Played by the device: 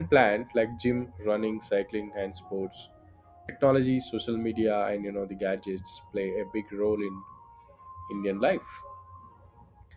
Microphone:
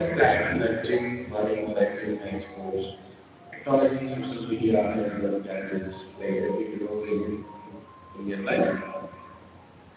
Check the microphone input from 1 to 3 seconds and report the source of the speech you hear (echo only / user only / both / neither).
echo only